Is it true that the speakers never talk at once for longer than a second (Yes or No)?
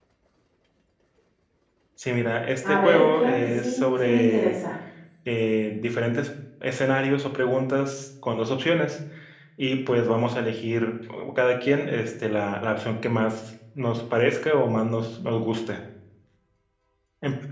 No